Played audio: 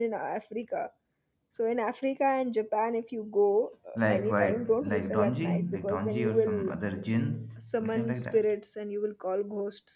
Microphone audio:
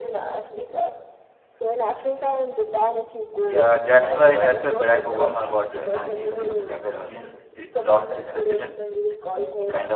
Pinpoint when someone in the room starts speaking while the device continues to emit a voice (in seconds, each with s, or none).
3.4 s